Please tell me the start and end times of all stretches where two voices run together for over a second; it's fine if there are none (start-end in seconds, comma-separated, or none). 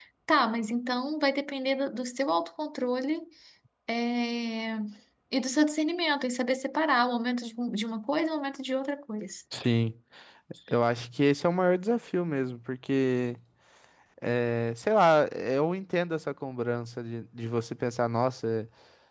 none